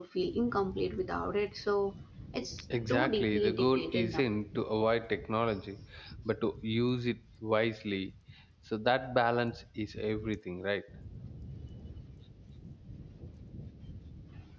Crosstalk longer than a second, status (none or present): present